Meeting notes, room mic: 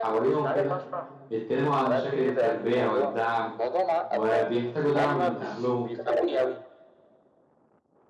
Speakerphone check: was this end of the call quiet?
No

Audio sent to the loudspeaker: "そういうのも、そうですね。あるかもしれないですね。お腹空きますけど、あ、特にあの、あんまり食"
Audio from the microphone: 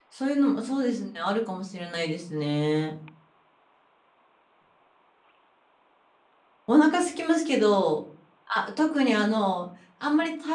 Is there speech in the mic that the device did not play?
No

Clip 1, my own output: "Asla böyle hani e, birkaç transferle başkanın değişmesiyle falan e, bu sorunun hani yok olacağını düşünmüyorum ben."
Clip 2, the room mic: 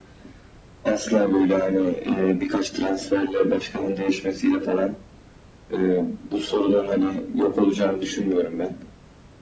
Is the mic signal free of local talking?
Yes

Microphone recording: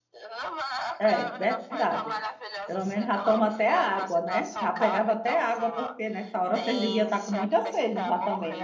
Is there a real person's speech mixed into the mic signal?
Yes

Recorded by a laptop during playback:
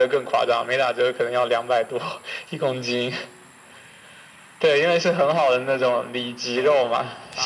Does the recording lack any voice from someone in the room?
No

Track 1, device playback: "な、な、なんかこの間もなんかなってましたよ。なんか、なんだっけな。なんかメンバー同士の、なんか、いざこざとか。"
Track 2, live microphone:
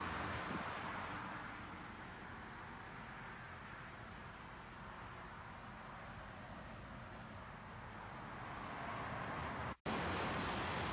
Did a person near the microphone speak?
No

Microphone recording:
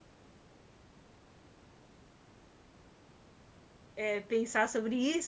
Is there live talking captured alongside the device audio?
Yes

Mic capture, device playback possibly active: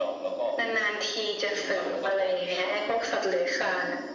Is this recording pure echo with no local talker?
Yes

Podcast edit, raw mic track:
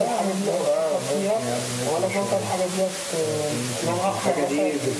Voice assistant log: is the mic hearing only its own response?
No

